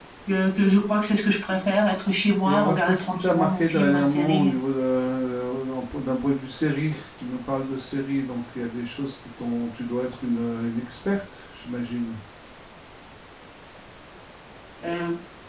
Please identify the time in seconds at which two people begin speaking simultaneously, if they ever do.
2.4 s

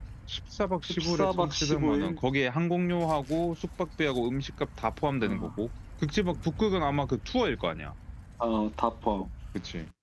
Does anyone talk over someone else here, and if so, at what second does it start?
0.9 s

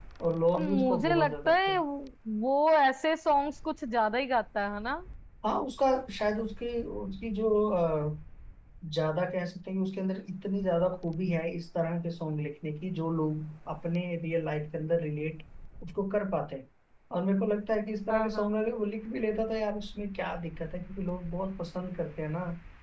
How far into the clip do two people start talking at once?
0.6 s

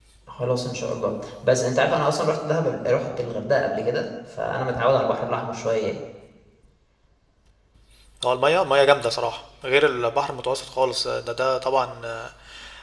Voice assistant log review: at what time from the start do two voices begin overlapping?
none

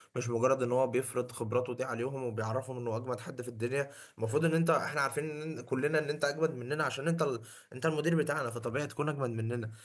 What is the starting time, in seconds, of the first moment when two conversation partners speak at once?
none

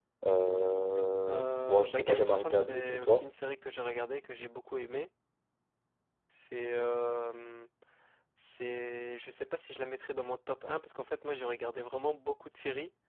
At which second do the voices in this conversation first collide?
1.3 s

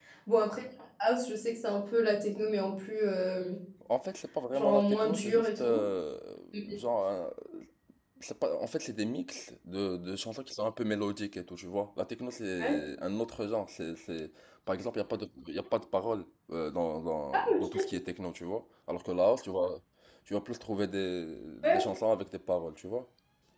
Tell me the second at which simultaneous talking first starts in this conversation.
4.5 s

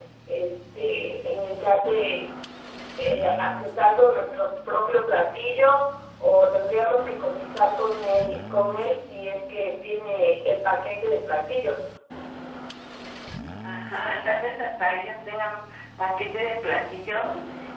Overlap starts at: none

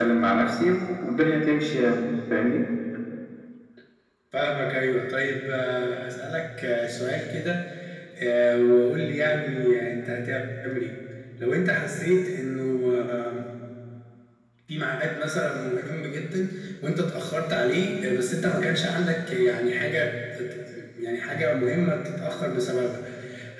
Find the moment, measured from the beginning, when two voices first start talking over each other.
none

